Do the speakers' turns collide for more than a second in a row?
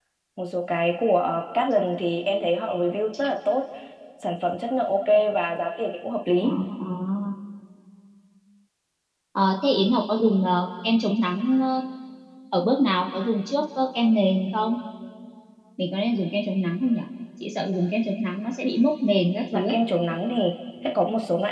No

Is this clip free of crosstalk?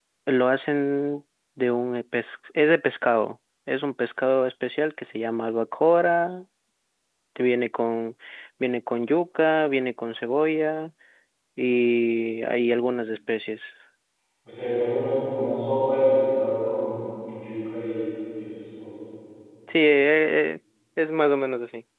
Yes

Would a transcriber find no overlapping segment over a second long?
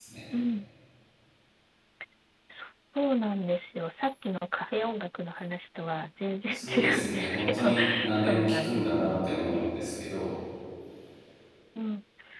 No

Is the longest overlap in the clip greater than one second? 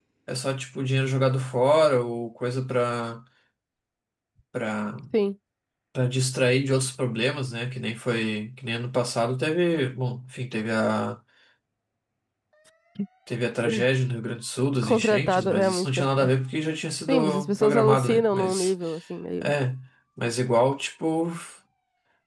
Yes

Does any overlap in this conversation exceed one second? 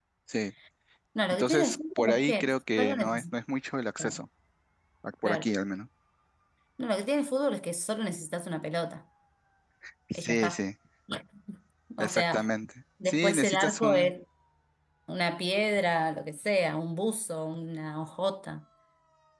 Yes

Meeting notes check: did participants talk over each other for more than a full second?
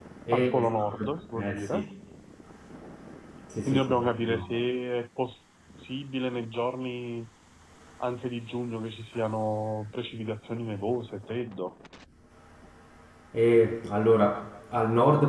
Yes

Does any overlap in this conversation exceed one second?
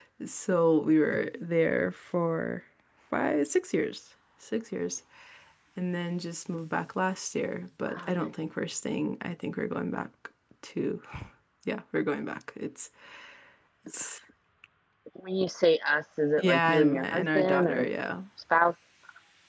Yes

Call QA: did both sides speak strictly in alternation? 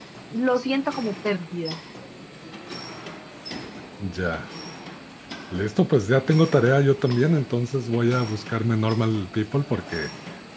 Yes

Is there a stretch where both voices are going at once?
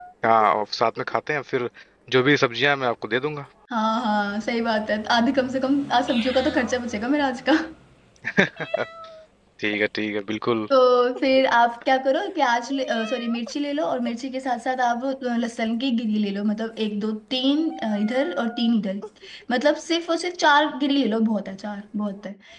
No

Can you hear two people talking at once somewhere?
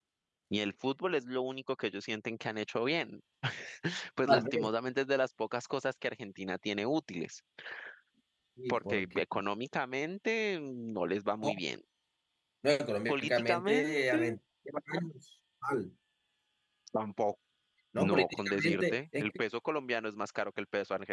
Yes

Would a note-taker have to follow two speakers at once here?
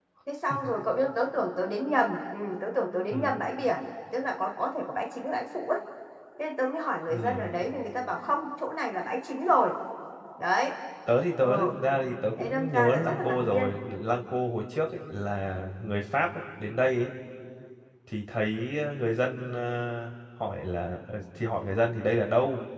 Yes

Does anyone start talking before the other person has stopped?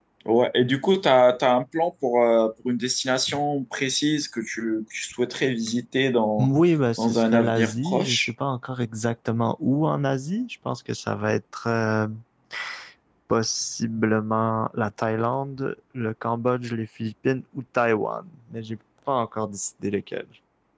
Yes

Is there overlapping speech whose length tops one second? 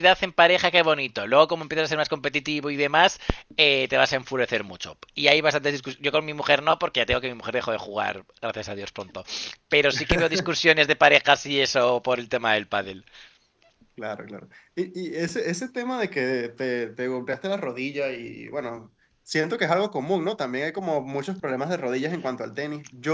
No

